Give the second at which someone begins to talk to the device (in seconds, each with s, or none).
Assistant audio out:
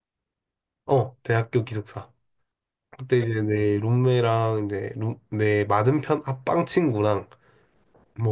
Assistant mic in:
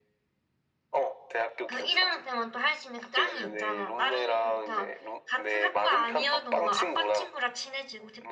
1.7 s